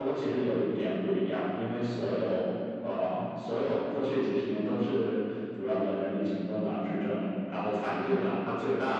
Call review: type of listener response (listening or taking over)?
listening